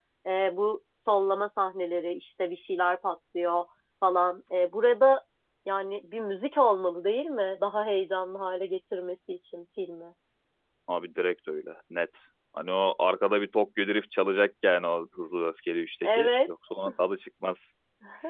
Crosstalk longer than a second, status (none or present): none